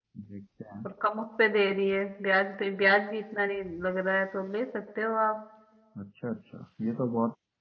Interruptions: none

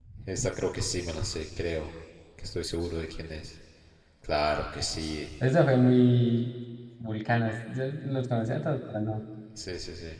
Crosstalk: none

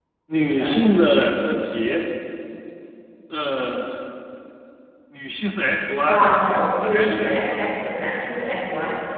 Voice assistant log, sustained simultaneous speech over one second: present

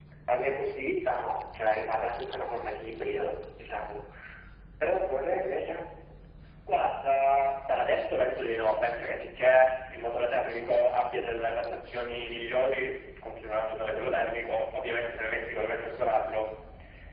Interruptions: none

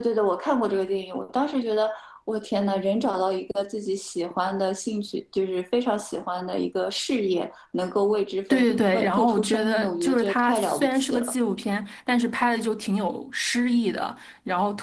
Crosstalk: present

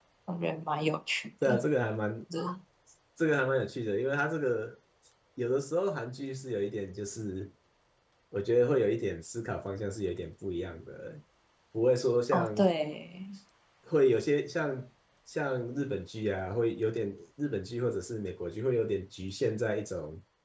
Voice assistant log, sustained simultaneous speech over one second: none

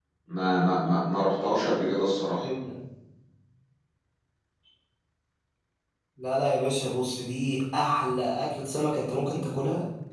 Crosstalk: none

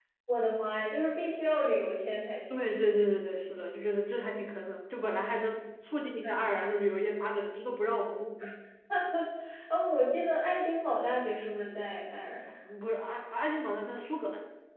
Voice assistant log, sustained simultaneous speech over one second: none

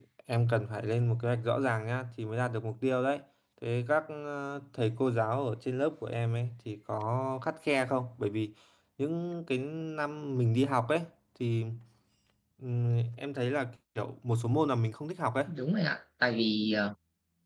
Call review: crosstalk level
none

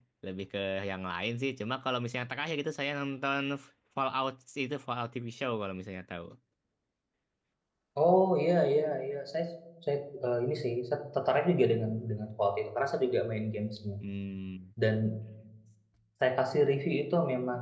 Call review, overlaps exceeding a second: none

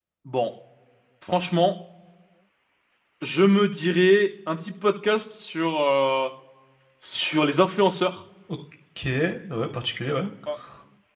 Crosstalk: none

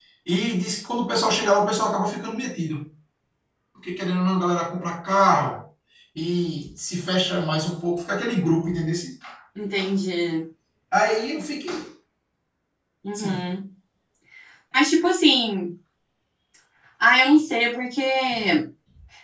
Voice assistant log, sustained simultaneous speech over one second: none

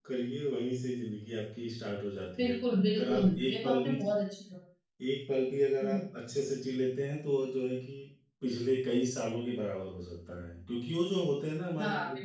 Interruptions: present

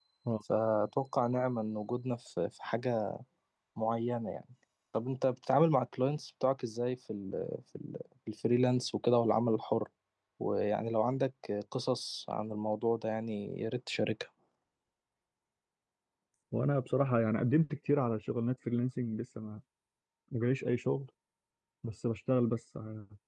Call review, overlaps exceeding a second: none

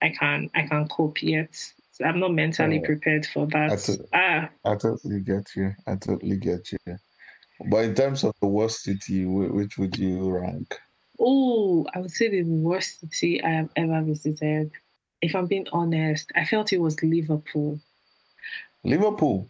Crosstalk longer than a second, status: none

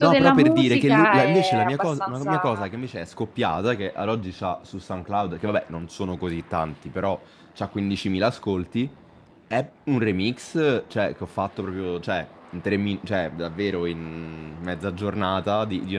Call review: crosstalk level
present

